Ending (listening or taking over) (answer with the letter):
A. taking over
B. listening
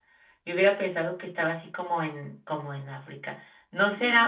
B